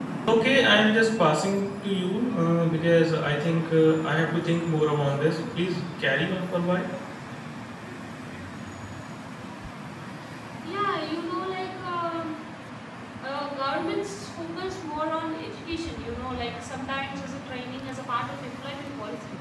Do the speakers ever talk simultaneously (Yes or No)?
No